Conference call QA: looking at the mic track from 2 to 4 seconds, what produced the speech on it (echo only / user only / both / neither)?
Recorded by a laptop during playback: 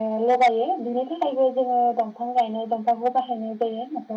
echo only